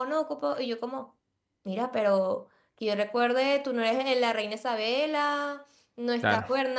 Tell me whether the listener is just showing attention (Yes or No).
Yes